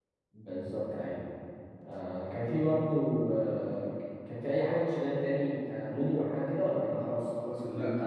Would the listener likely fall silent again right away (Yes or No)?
No